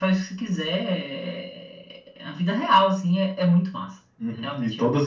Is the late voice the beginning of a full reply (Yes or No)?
Yes